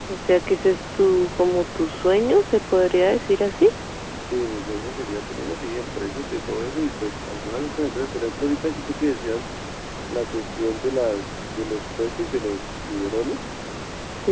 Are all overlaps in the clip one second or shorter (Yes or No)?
Yes